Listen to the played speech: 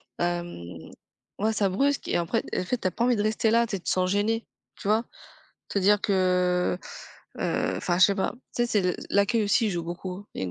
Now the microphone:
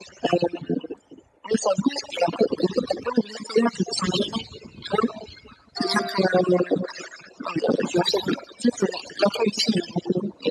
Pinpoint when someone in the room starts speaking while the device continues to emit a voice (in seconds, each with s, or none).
none